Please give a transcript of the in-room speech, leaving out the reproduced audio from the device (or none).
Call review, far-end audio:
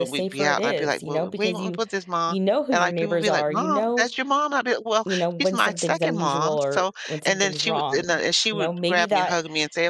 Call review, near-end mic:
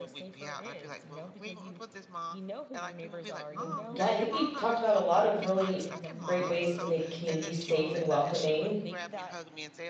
Well, yeah, I think we talked about a lot of really great ways to make communities safe and welcoming.